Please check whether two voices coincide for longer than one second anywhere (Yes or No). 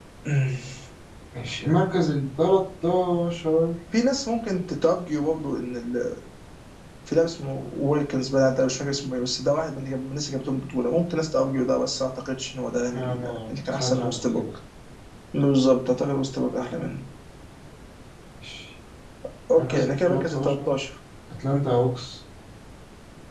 Yes